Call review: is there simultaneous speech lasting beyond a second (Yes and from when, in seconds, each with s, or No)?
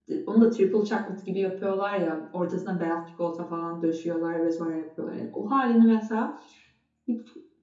No